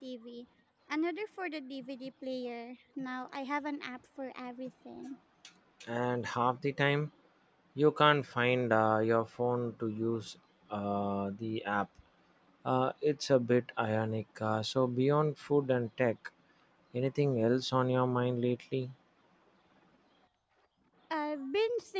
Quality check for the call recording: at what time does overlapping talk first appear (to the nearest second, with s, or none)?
none